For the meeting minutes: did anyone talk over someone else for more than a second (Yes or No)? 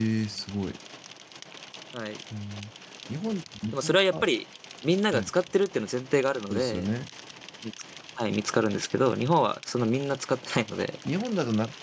No